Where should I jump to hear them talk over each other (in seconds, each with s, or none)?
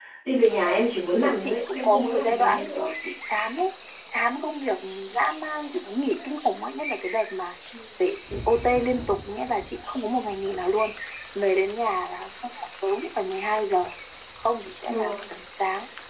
1.1 s